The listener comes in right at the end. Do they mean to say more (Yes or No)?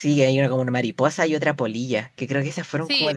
Yes